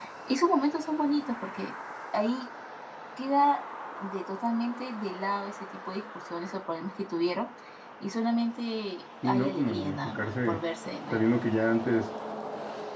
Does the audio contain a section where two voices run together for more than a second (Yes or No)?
Yes